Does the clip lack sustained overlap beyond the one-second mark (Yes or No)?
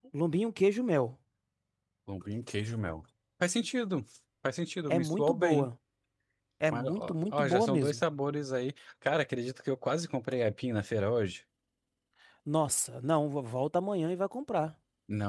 No